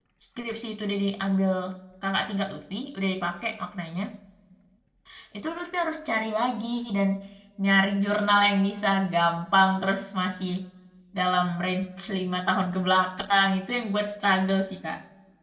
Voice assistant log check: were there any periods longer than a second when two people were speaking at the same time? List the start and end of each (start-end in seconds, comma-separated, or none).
none